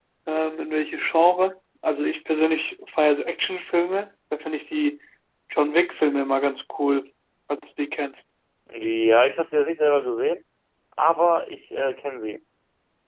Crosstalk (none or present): none